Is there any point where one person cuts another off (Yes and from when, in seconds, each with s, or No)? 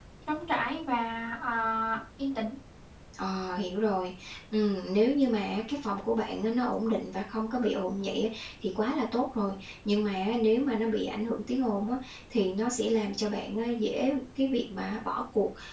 No